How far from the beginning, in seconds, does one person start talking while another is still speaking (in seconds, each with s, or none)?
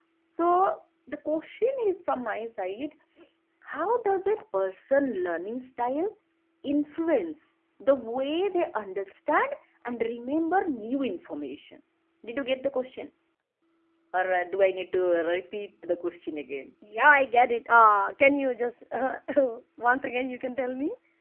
none